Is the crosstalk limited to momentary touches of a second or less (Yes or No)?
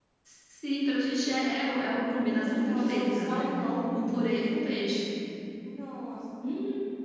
No